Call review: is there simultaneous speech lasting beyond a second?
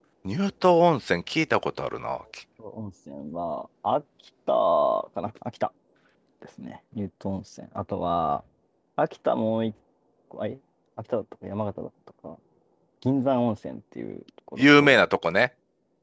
No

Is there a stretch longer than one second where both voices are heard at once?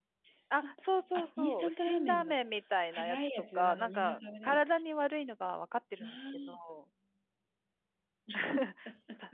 Yes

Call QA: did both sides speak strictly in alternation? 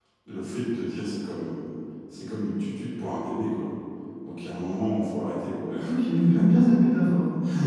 Yes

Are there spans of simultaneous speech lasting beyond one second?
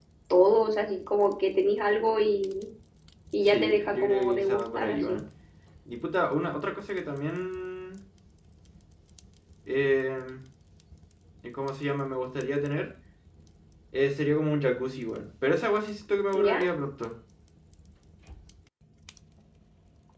Yes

